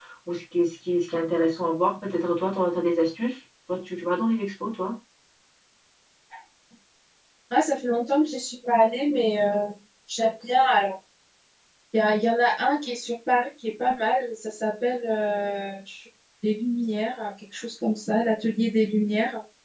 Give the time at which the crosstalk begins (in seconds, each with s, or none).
none